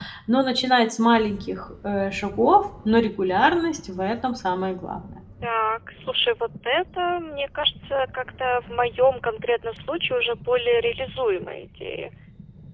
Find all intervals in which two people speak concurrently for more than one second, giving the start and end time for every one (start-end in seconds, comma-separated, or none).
none